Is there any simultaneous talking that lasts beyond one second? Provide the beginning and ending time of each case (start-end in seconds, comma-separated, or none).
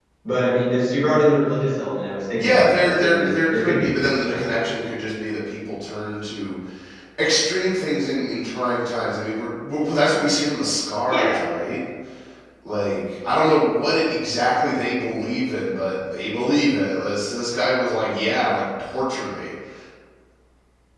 2.4-4.5